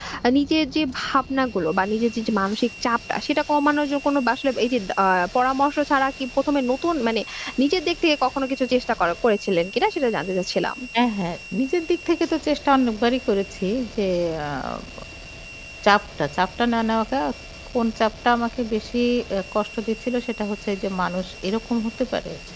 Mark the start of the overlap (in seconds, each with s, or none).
none